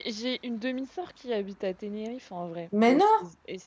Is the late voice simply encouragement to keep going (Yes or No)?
Yes